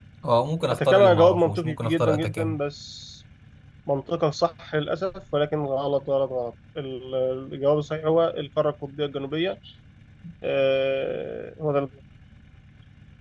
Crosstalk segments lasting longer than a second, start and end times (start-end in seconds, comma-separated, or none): 0.7-2.6